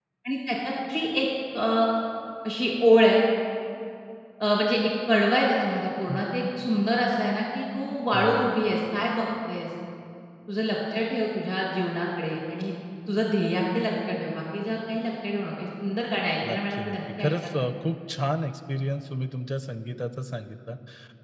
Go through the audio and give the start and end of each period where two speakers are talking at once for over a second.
16.5-17.7

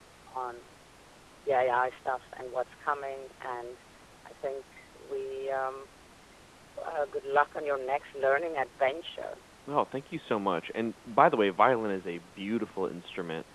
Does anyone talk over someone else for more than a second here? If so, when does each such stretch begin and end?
none

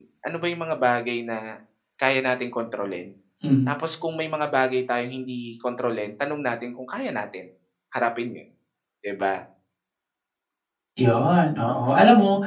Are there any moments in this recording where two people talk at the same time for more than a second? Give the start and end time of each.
none

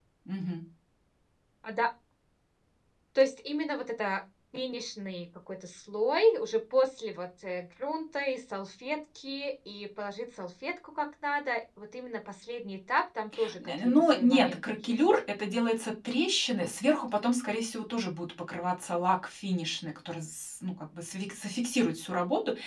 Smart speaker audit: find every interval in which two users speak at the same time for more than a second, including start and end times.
13.6-15.0

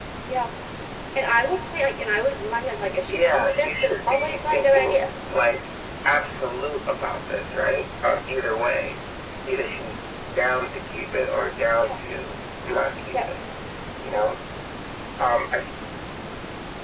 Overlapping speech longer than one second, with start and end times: 3.1-5.0

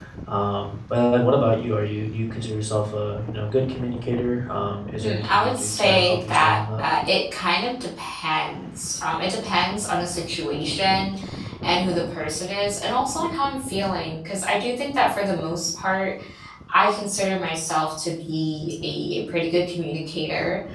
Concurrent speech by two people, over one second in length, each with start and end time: 5.0-6.8

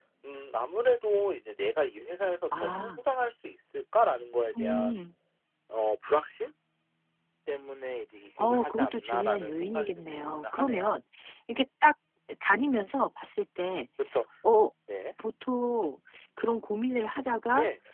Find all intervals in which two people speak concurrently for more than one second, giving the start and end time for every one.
8.4-10.9

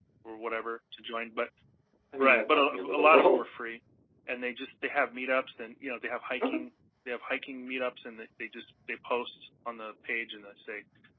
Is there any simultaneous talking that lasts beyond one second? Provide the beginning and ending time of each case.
2.2-3.4

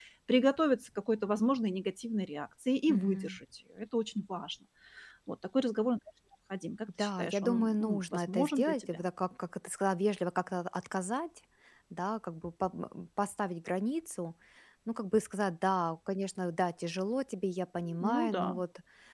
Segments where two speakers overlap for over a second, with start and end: 7.0-9.0

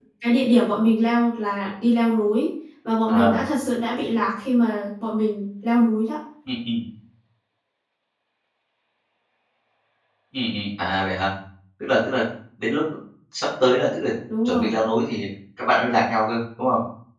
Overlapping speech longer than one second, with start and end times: none

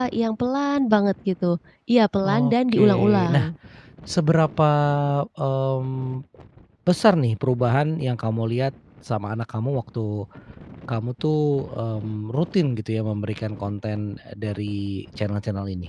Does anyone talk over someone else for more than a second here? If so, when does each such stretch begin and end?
2.2-3.5

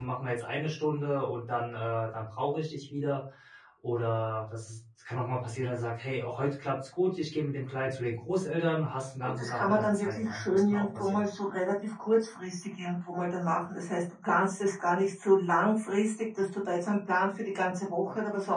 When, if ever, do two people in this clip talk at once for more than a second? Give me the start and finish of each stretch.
9.2-11.2

